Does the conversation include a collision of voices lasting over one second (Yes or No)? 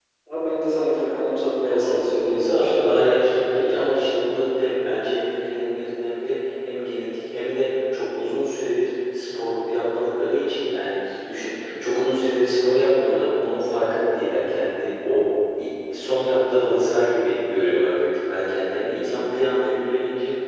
Yes